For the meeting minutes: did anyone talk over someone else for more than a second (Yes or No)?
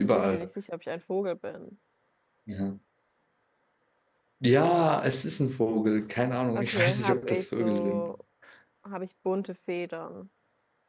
Yes